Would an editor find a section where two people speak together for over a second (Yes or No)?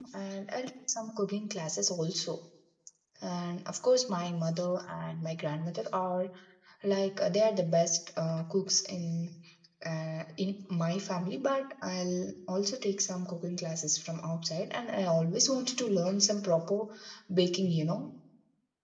No